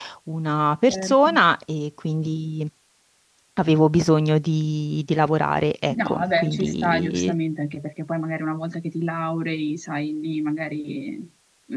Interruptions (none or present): present